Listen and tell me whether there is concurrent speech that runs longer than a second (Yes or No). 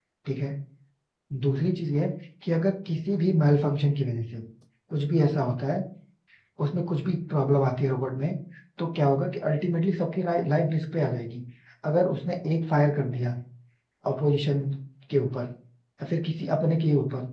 No